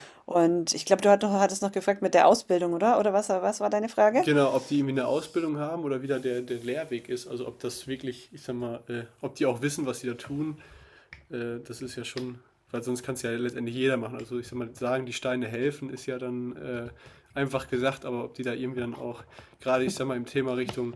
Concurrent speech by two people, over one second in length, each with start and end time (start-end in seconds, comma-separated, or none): none